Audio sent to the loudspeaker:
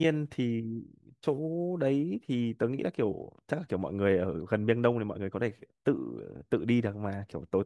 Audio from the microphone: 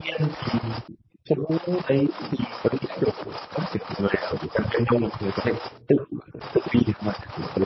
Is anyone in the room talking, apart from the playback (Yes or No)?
No